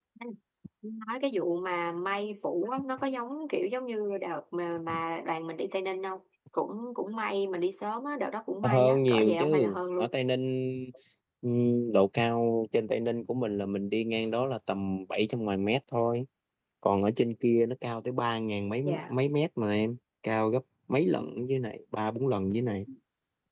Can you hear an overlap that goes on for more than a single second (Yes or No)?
Yes